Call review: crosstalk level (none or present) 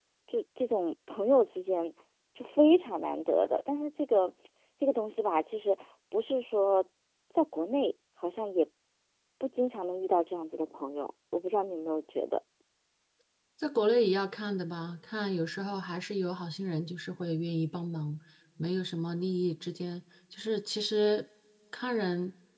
none